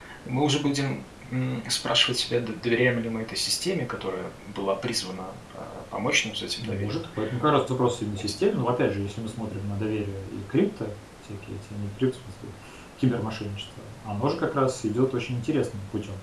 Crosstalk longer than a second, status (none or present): none